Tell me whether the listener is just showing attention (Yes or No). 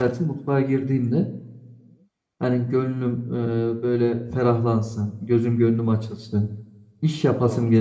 Yes